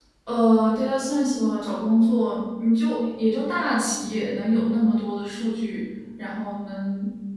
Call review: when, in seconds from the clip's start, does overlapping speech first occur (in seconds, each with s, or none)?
none